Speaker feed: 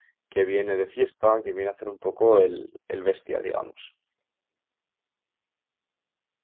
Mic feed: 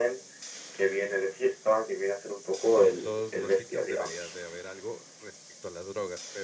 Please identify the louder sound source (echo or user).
echo